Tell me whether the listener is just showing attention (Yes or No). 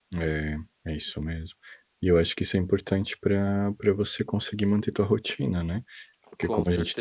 Yes